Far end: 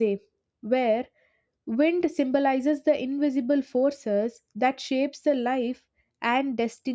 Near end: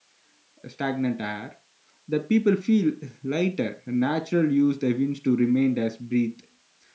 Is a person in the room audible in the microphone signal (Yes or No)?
Yes